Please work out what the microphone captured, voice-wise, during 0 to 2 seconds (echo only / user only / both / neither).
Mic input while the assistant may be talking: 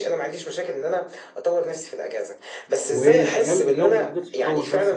echo only